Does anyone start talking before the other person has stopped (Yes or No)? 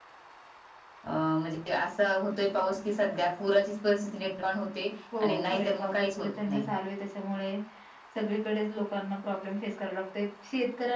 Yes